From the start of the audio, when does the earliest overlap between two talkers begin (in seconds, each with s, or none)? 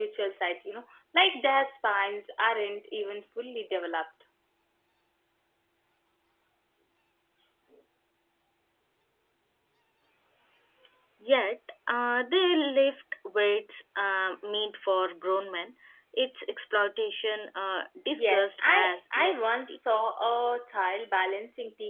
18.1 s